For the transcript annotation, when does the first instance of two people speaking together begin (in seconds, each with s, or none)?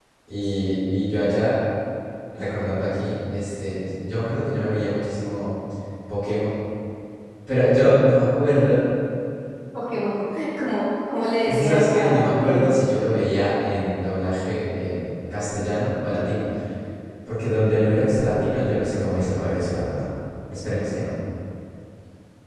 11.4 s